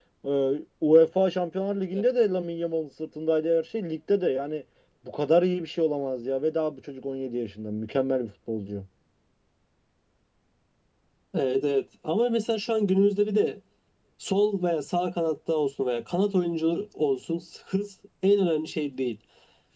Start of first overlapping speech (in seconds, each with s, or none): none